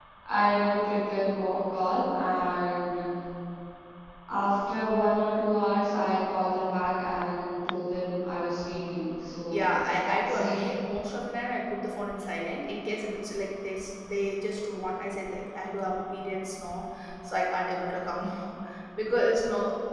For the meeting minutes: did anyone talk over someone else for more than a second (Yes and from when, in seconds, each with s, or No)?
Yes, from 9.5 s